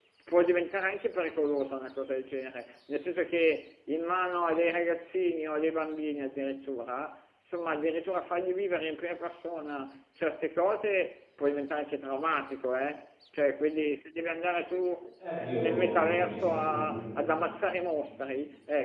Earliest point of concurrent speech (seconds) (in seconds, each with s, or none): 15.2 s